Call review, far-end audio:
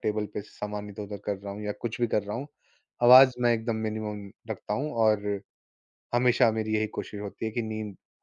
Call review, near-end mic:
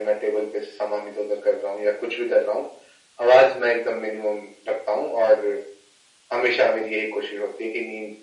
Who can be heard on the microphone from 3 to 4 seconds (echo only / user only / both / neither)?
echo only